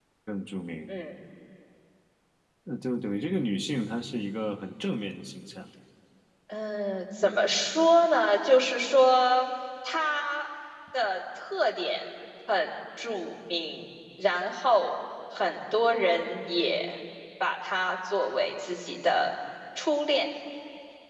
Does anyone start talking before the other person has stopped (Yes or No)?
No